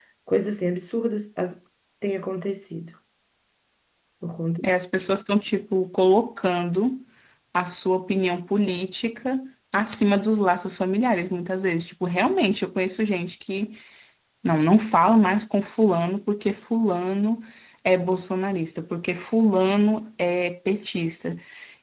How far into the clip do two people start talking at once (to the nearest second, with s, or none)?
none